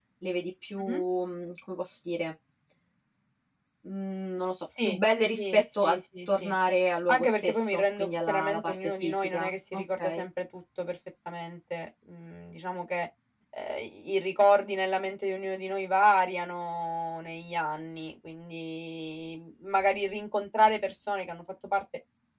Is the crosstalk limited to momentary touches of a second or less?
No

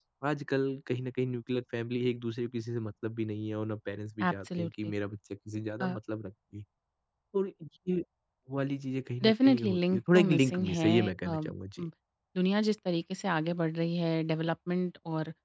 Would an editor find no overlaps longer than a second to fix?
No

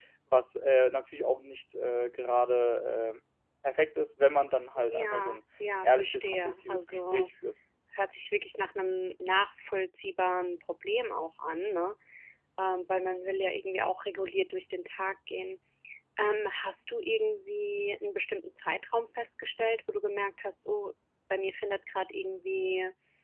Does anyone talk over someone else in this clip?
Yes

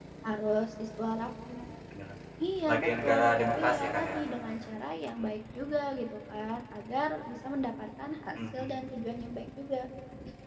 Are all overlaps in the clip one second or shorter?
No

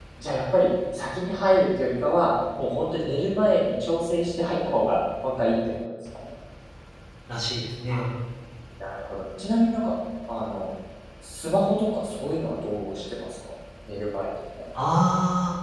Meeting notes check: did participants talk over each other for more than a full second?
No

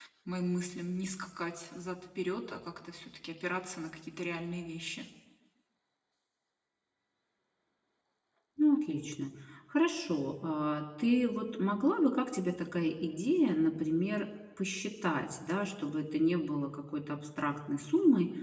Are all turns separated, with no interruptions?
Yes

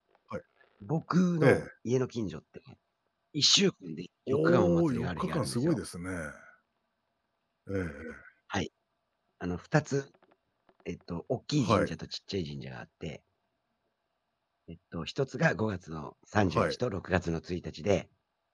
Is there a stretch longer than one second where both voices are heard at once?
Yes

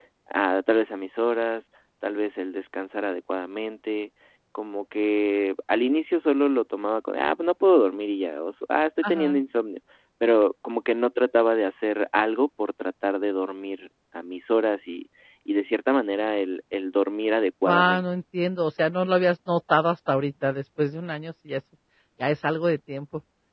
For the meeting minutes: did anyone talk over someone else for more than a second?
No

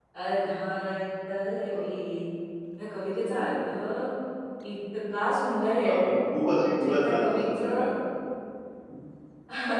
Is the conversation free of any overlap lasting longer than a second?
No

